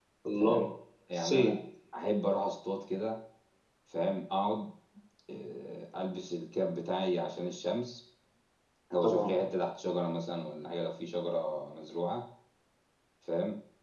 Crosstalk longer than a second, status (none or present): none